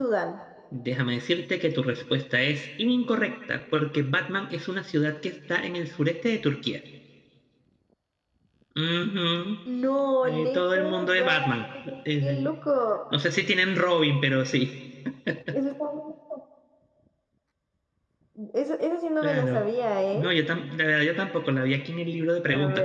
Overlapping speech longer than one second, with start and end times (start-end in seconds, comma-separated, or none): 10.2-11.5